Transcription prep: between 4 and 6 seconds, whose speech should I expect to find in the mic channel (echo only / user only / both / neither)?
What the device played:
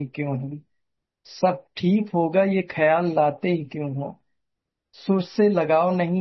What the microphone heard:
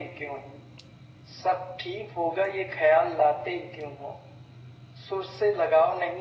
echo only